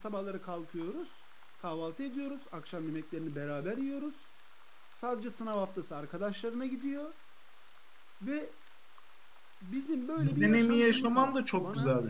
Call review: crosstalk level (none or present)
present